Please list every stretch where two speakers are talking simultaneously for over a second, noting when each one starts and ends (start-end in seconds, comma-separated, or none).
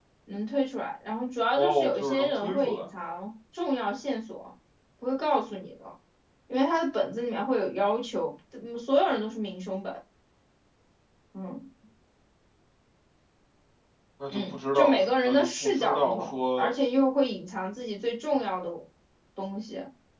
1.5-2.9, 14.3-16.7